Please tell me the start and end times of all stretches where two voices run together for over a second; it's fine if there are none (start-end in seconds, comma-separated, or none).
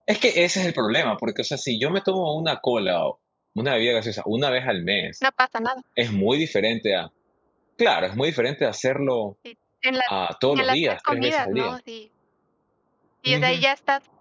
10.5-11.7